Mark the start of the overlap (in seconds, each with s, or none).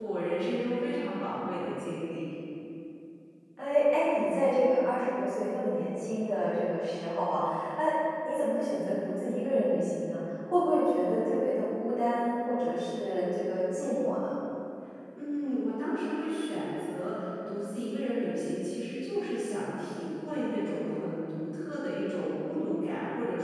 none